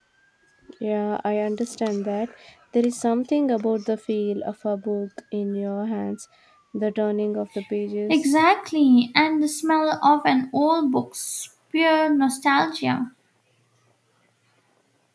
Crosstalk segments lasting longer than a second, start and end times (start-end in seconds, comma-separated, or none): none